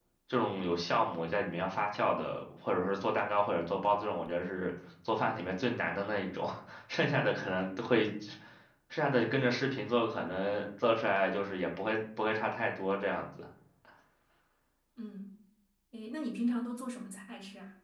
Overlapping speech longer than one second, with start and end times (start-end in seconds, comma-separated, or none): none